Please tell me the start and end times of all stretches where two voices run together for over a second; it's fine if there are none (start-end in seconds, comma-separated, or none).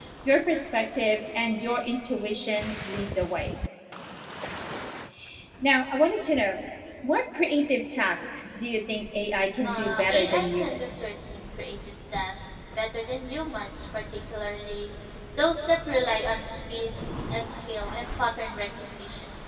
9.6-10.9